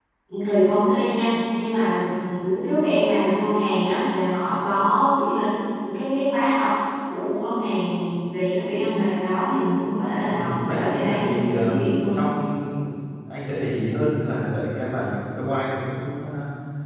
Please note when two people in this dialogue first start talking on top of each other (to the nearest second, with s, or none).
10 s